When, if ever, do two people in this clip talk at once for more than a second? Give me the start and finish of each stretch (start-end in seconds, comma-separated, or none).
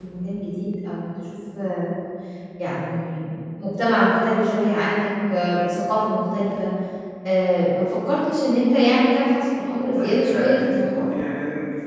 9.8-11.0